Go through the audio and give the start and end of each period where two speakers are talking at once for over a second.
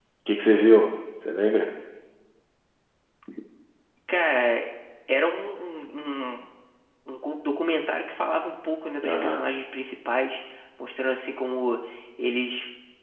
none

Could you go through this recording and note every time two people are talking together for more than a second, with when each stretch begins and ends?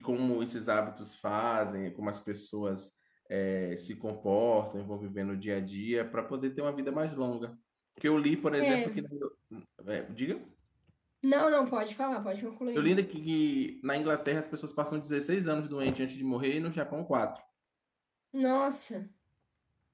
none

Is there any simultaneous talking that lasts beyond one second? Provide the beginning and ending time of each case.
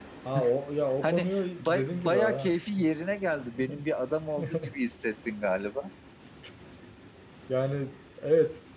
1.0-2.6

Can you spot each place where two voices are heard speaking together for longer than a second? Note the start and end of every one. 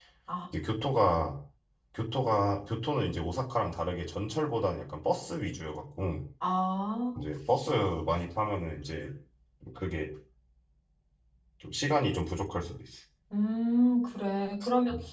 none

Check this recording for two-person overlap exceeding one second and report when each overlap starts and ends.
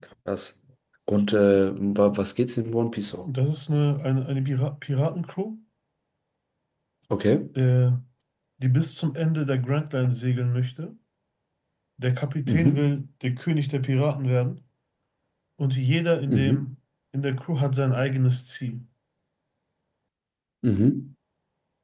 none

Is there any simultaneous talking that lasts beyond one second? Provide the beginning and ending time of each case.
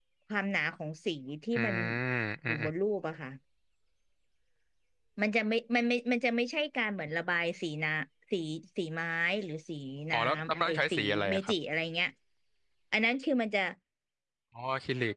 10.1-11.5

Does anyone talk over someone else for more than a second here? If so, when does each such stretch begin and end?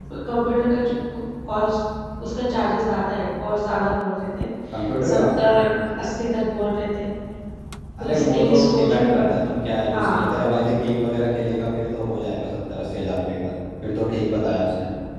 8.0-9.3

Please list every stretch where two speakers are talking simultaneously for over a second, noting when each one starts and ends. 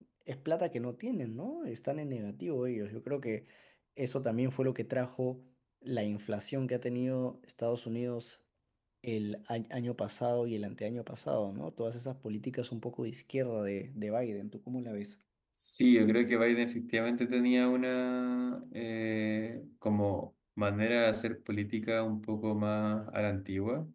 none

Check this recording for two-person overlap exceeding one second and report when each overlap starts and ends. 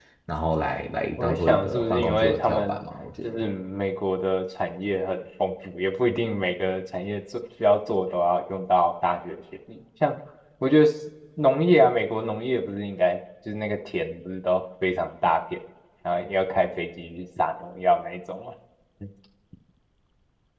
1.2-2.8

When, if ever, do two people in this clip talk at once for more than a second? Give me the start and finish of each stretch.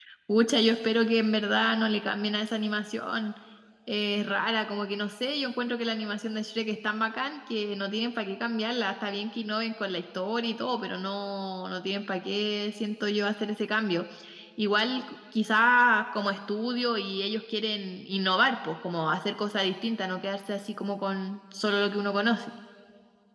none

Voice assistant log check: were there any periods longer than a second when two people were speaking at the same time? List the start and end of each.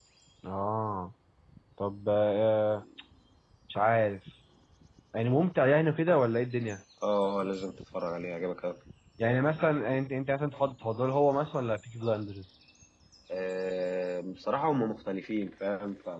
none

